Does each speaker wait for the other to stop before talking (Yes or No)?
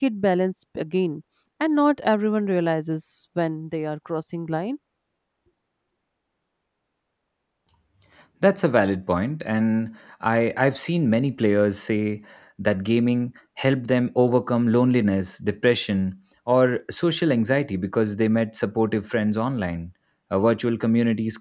Yes